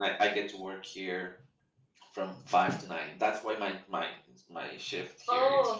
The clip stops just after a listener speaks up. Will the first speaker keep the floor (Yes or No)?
No